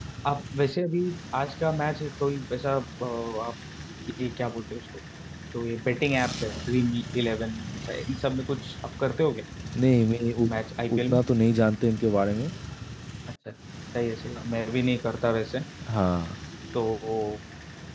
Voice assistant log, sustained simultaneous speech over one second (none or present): none